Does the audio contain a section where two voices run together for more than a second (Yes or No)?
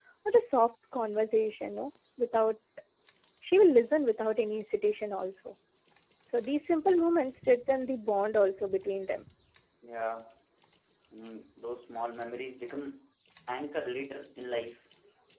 No